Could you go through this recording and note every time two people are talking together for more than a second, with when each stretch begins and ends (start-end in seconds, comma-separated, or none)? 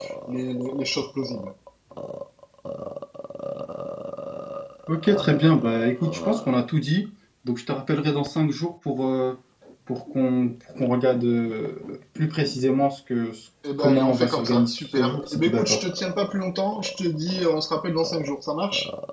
13.8-15.8